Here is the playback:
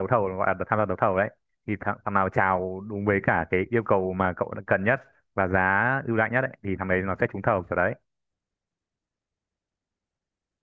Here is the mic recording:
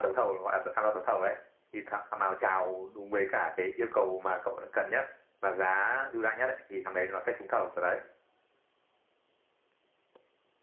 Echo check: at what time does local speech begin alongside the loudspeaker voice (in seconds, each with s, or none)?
none